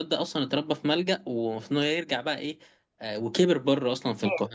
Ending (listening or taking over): listening